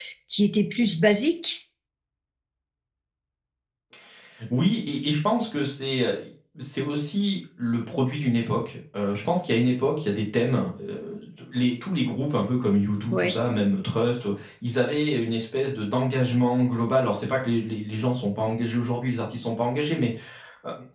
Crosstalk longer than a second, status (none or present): none